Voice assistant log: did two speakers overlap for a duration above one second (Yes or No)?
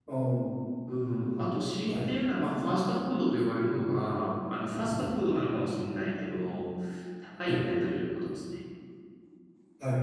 No